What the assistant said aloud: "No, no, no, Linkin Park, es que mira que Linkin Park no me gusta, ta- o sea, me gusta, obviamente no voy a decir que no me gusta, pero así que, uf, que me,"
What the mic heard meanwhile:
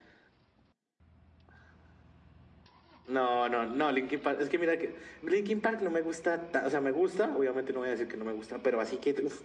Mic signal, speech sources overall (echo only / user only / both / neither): echo only